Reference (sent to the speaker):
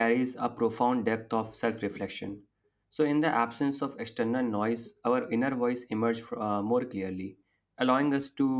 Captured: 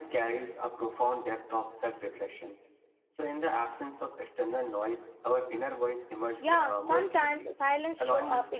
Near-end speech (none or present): present